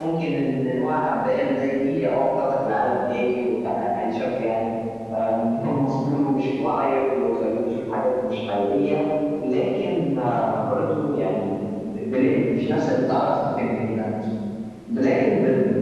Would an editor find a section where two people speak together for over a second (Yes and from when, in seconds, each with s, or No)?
No